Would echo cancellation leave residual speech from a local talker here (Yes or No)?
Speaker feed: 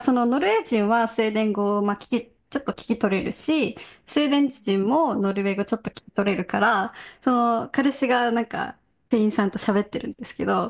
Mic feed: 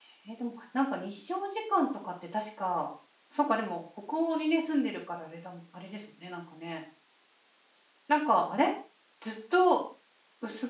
Yes